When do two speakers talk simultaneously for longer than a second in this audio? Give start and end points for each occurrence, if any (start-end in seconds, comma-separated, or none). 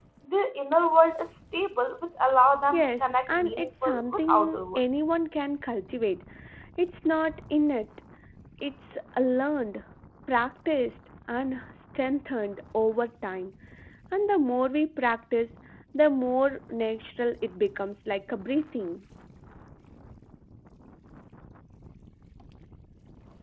2.7-4.8